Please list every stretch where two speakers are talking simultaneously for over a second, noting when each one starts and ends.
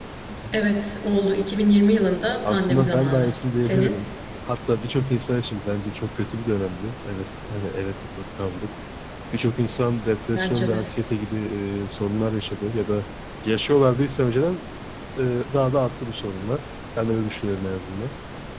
2.4-4.0

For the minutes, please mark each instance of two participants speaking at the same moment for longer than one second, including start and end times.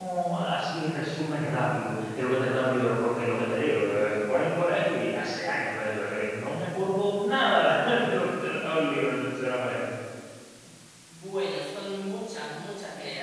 none

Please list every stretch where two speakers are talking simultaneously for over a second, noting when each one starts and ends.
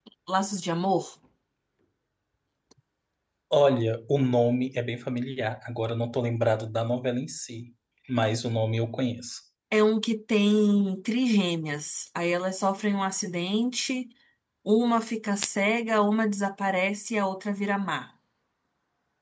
none

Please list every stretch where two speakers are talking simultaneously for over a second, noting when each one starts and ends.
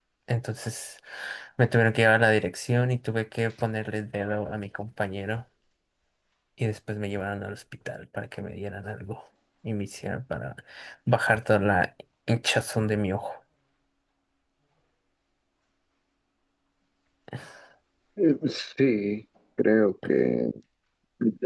none

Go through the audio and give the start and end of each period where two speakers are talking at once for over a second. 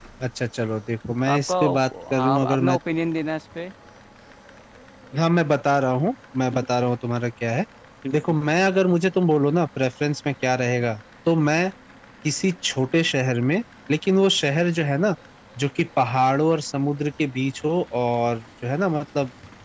1.3-2.8

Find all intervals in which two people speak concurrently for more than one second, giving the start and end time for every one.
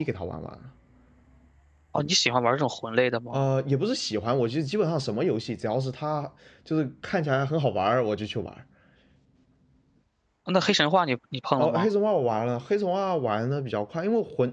none

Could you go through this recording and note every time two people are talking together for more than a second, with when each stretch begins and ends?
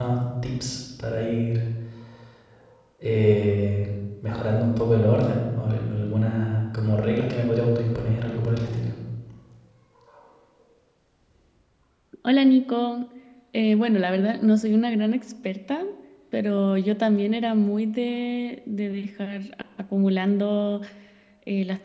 none

